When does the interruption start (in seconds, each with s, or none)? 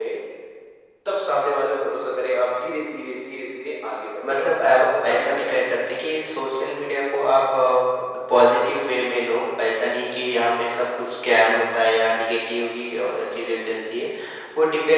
4.2 s